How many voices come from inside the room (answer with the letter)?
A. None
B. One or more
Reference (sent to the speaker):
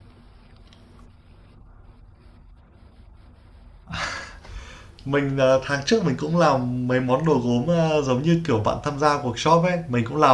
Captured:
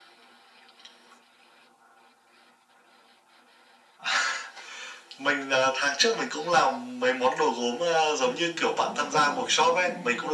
B